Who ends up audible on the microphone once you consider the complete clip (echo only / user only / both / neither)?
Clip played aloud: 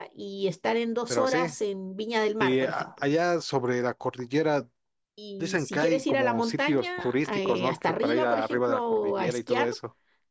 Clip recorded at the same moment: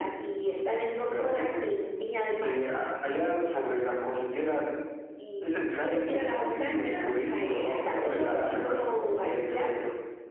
echo only